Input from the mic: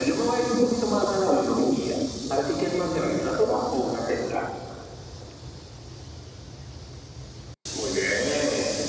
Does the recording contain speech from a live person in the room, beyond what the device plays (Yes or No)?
No